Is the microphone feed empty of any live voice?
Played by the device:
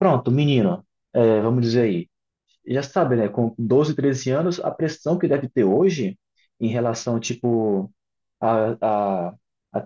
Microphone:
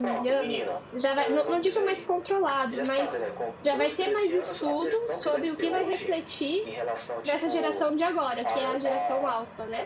No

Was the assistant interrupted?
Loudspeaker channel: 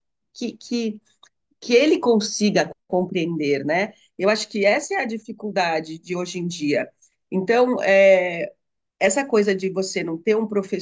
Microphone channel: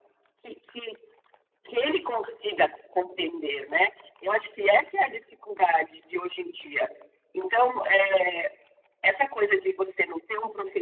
No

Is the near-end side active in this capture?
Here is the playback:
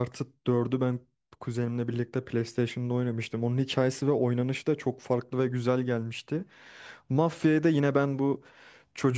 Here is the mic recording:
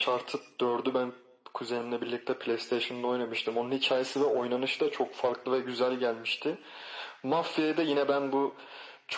No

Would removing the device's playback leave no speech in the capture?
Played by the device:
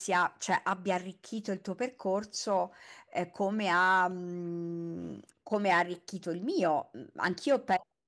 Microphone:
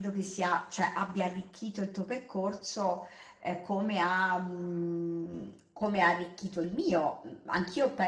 Yes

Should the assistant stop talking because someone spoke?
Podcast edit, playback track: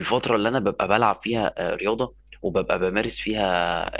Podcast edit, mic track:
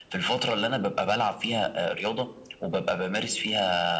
No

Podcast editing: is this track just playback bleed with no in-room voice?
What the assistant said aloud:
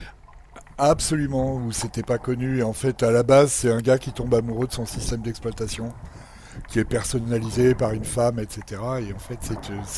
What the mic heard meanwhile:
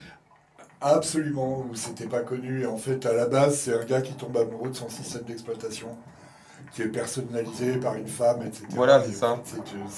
No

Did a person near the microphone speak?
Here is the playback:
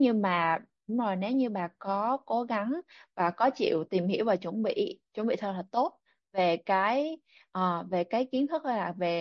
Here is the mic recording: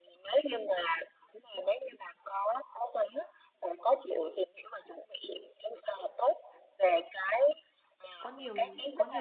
Yes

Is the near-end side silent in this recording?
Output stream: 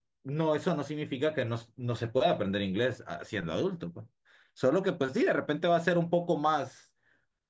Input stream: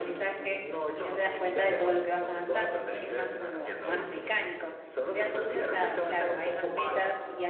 No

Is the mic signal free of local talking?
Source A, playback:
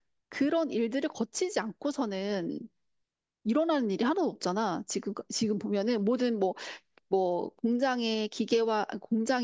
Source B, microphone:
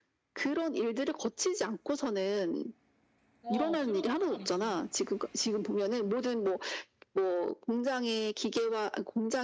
No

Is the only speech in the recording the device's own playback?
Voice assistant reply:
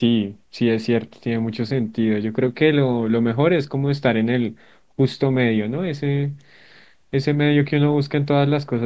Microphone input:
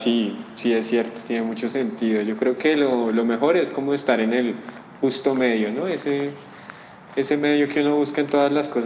Yes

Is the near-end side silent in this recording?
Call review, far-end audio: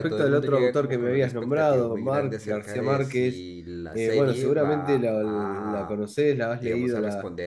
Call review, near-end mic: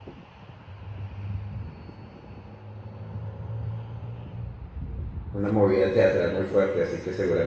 No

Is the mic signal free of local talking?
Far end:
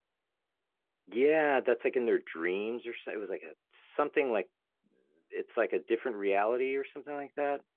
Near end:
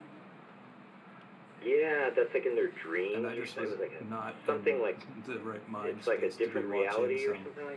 No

